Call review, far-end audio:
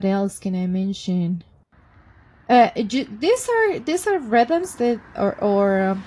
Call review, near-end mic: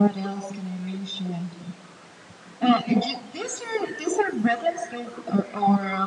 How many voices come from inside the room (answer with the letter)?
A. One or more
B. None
B